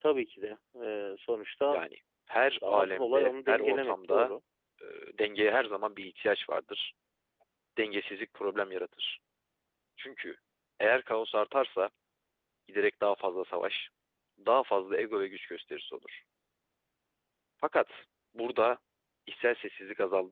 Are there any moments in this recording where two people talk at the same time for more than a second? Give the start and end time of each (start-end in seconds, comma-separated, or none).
2.7-4.3